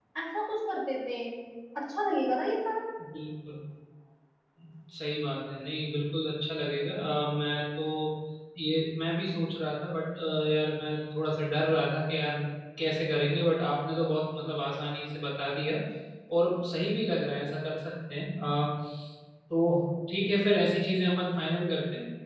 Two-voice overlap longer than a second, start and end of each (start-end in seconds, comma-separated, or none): none